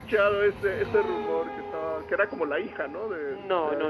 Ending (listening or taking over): taking over